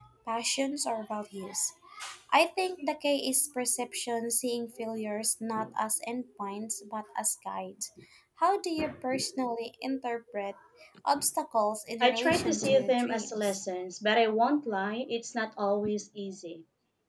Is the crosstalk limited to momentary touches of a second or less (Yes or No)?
No